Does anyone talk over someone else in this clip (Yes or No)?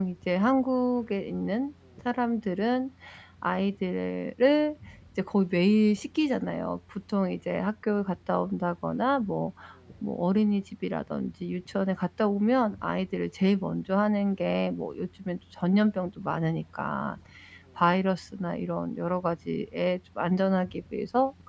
No